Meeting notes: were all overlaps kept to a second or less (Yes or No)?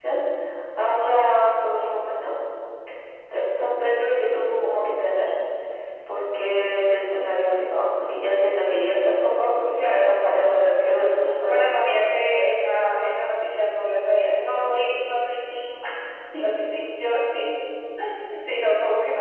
No